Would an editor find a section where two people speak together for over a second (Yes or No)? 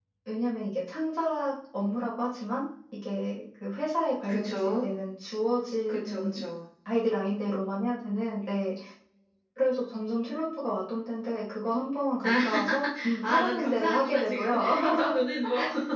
Yes